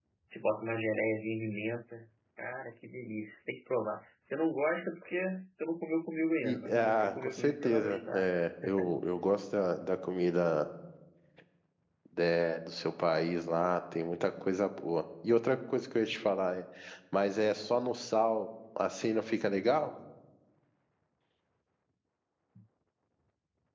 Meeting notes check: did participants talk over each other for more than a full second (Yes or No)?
Yes